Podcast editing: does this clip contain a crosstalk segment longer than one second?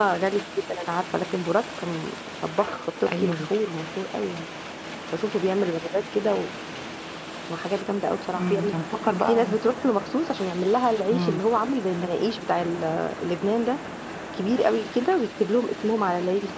No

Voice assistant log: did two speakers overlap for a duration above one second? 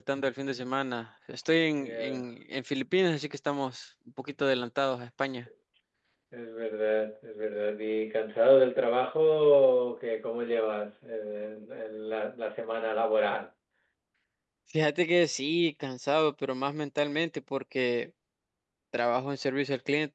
No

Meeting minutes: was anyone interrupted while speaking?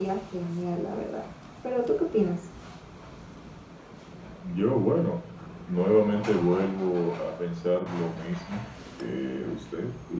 No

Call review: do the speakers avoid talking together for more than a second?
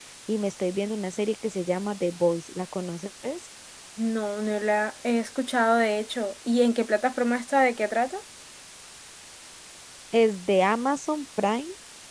Yes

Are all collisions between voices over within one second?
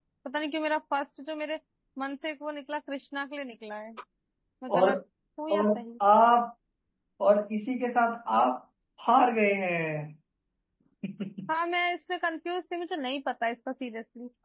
Yes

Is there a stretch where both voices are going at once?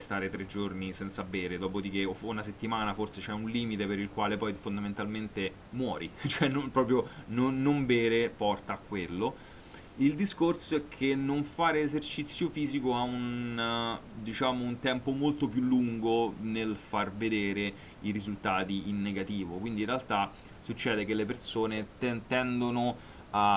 No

